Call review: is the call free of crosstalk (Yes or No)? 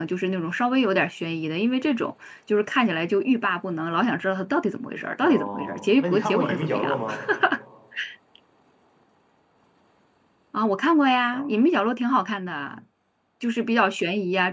No